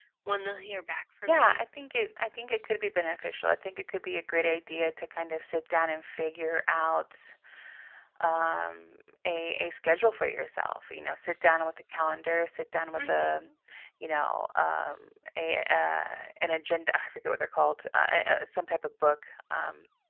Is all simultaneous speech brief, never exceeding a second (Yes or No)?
Yes